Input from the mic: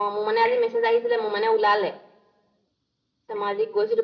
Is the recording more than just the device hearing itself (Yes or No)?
No